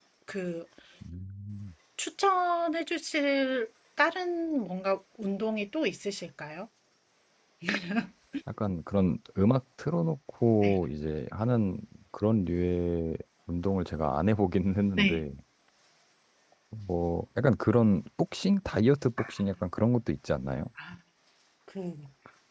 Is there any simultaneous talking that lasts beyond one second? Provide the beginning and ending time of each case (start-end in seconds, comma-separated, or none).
none